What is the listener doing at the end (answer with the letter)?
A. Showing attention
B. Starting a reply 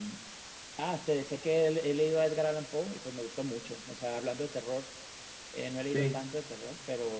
A